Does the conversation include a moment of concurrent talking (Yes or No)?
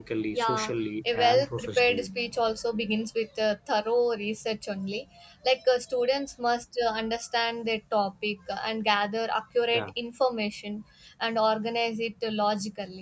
Yes